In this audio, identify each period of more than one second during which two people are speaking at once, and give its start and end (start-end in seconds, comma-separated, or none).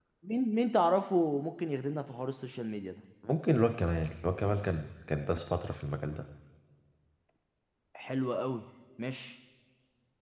none